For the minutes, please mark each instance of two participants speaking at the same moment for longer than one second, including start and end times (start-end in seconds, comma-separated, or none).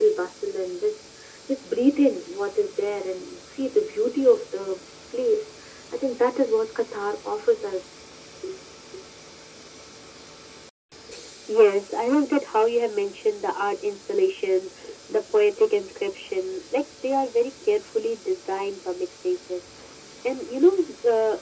none